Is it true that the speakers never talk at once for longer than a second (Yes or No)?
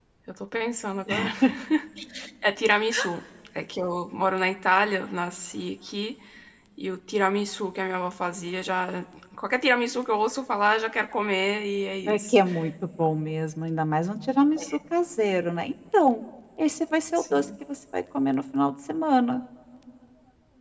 Yes